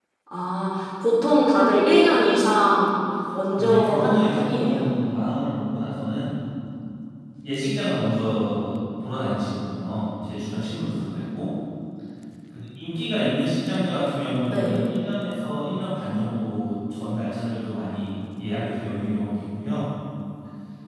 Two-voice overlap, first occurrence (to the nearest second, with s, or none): 4 s